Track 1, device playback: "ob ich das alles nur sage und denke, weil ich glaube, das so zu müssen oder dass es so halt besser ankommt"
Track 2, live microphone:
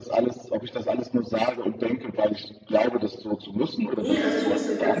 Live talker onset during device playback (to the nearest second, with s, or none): 4 s